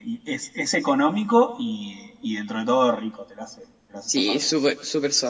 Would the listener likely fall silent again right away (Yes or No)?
No